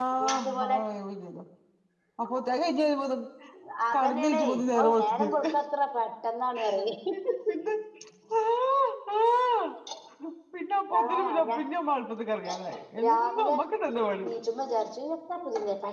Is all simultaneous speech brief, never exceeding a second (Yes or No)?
No